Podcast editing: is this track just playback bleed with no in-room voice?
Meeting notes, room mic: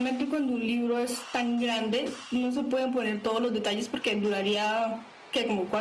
Yes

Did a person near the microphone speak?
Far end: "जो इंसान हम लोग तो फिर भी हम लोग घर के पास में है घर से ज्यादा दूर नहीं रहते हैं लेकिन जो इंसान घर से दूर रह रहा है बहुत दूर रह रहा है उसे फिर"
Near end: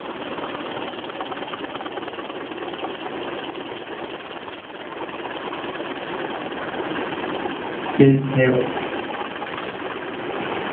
Yes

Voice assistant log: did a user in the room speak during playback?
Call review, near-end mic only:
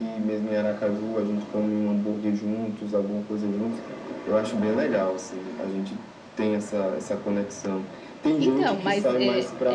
Yes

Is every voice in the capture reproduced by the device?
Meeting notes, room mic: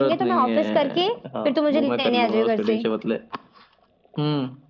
Yes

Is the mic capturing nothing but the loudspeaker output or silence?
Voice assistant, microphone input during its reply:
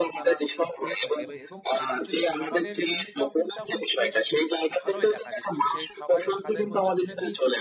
No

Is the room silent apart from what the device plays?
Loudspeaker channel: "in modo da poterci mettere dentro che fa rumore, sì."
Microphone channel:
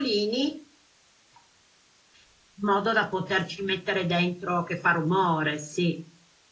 Yes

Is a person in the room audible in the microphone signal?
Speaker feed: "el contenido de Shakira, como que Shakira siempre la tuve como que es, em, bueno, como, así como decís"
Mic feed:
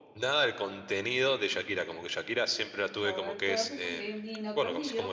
Yes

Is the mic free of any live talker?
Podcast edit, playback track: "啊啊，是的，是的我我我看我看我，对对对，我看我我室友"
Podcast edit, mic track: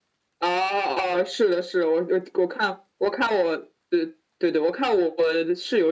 Yes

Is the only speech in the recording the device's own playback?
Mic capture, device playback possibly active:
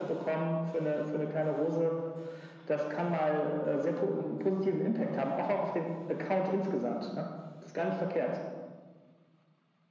Yes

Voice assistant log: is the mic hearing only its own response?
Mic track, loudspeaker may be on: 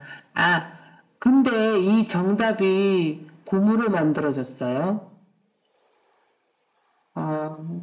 Yes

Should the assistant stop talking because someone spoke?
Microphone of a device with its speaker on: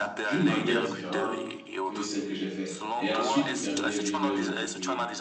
Yes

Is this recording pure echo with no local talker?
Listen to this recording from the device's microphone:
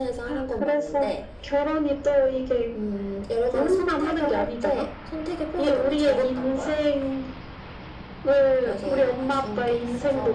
Yes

